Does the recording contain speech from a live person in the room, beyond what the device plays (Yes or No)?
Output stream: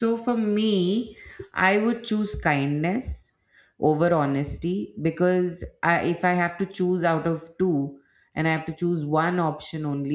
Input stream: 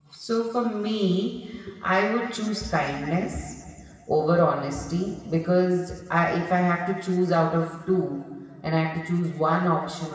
No